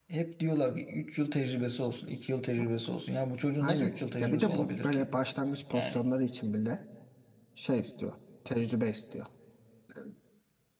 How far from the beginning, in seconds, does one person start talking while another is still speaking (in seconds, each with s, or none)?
3.6 s